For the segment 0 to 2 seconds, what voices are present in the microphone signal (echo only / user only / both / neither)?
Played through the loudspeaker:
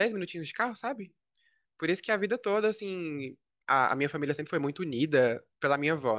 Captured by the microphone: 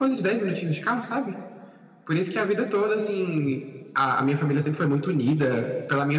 echo only